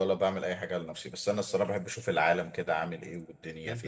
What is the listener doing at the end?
taking over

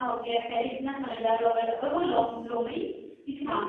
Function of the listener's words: listening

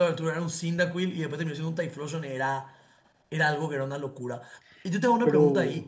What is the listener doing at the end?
listening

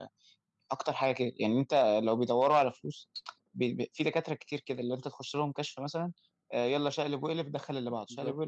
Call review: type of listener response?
taking over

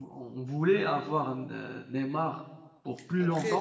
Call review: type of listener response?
taking over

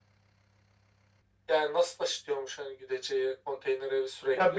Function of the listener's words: taking over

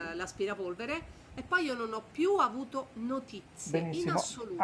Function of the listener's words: taking over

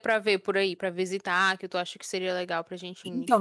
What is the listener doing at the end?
taking over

